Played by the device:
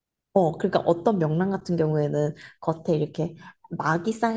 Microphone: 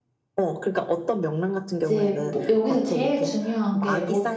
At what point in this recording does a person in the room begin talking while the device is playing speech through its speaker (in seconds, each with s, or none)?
1.8 s